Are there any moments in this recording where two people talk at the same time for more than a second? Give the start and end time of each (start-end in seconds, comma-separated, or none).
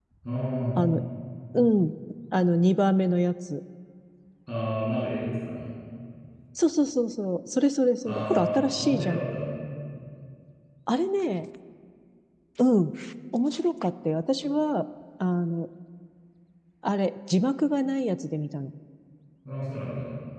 8.0-9.2